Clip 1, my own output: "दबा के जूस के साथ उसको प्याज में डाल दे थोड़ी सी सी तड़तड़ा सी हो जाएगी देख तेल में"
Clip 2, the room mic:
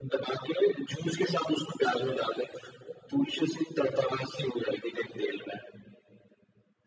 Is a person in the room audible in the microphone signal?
No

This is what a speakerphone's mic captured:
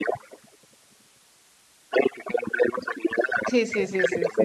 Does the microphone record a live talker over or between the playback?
Yes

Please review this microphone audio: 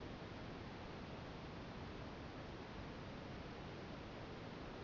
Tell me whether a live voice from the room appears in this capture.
No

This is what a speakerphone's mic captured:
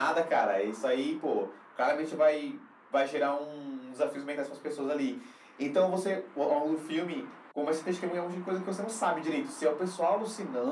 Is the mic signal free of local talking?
Yes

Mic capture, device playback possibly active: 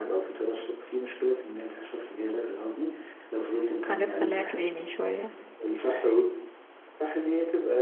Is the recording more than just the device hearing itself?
Yes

